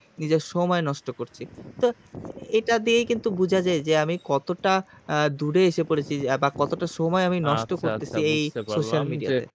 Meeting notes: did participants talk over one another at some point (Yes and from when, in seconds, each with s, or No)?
Yes, from 7.4 s